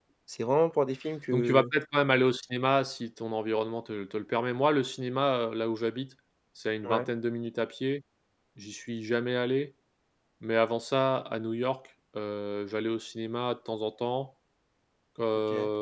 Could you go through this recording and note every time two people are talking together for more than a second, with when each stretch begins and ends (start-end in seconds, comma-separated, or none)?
none